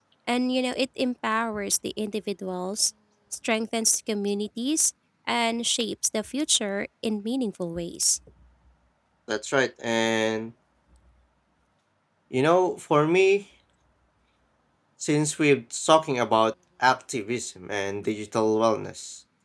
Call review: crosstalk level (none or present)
none